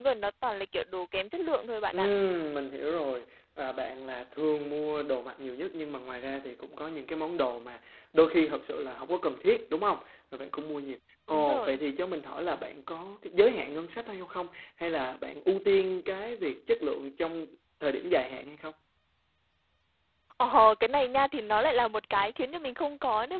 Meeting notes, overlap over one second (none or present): none